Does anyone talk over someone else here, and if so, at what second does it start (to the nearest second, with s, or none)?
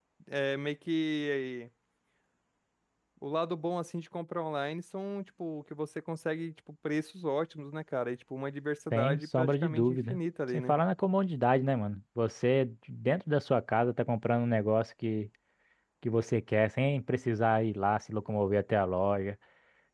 9 s